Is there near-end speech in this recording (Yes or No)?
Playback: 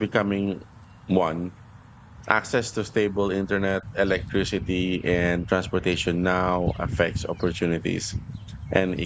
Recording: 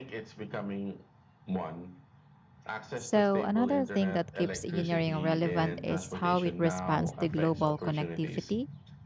Yes